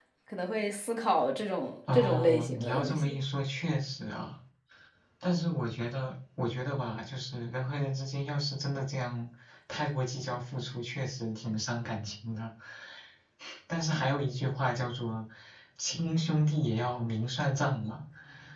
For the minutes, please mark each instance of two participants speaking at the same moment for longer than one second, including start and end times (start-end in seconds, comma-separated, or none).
1.9-3.1